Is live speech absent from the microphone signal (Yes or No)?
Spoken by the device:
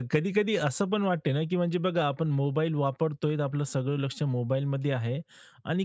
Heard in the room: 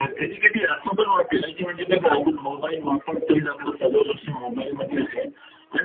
Yes